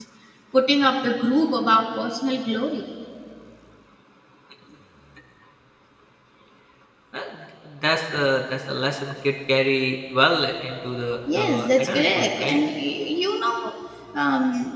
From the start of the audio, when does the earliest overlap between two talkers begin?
11 s

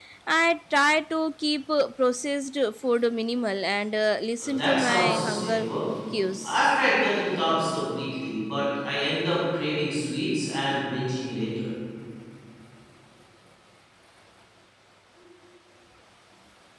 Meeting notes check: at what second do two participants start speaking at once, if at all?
4 s

